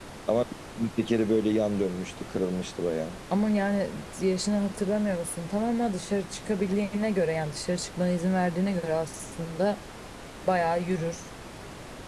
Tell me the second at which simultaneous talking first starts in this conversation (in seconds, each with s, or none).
none